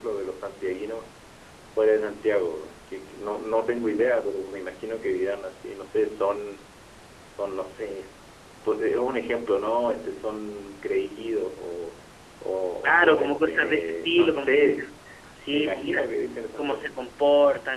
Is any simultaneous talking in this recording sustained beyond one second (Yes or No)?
Yes